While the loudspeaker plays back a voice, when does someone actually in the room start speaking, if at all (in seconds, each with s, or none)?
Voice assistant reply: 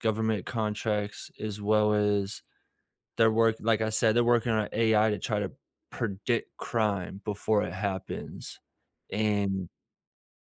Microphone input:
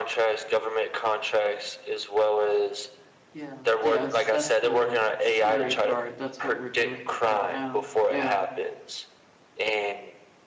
3.3 s